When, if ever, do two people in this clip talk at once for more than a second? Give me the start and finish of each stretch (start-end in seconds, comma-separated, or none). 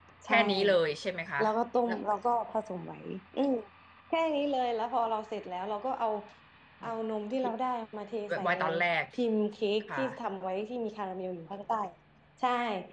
none